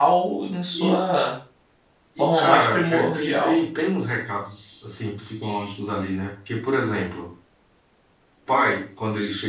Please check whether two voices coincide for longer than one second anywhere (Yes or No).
Yes